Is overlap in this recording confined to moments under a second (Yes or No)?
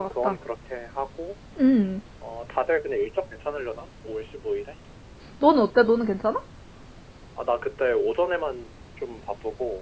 Yes